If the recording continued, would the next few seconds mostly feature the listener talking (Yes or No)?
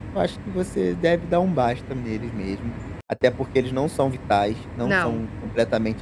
No